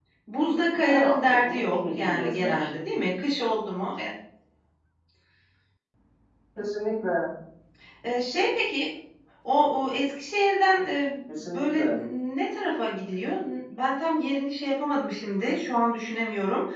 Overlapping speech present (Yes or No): Yes